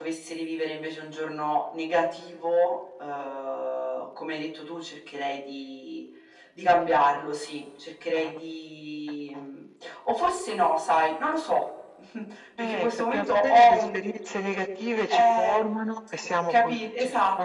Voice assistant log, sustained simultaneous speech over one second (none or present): present